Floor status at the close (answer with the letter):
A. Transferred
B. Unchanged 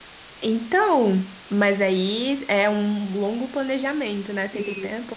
A